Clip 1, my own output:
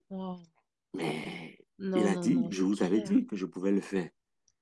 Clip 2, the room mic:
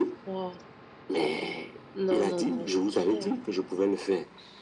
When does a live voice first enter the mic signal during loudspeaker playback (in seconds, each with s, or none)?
none